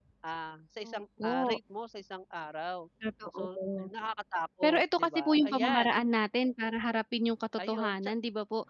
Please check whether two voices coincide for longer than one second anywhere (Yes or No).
Yes